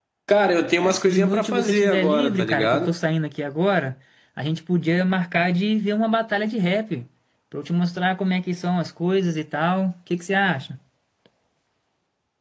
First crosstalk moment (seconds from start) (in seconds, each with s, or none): 0.8 s